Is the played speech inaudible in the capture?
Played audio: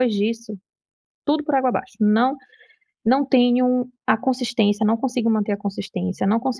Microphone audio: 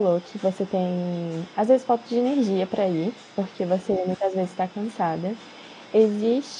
Yes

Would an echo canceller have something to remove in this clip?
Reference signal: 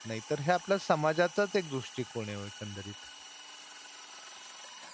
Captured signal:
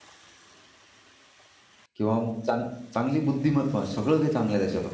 No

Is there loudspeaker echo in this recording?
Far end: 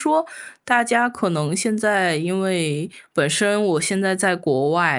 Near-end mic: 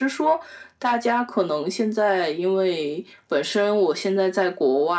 Yes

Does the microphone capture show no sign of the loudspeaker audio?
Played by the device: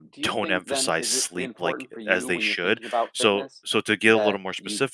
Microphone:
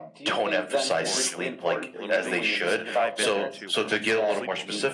No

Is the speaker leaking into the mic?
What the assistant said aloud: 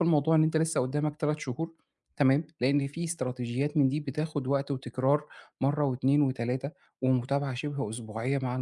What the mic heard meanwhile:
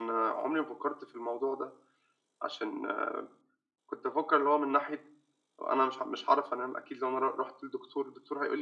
No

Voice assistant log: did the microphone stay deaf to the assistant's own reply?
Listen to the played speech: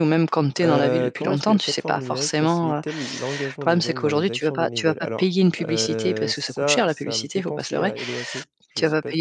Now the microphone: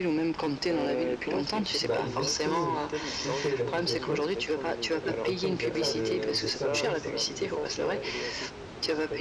No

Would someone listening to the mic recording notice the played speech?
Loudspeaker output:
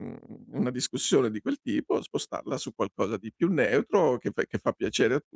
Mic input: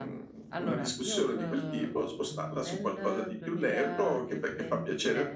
Yes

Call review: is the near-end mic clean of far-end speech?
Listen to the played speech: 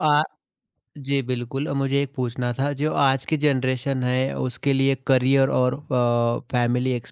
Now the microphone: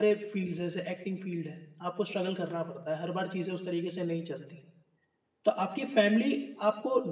Yes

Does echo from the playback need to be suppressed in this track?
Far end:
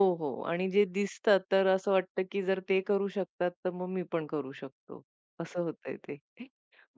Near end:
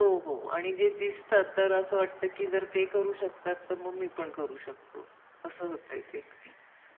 Yes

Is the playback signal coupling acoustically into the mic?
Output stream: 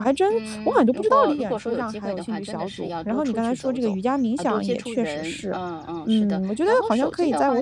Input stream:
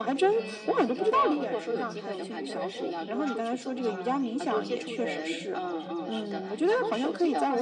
Yes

